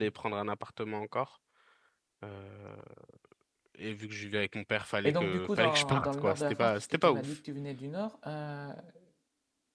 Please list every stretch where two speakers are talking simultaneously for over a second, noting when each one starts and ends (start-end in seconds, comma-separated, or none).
5.0-7.4